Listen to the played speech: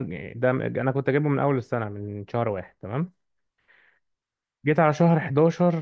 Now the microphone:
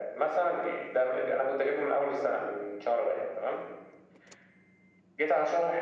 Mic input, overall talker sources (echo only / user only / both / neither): echo only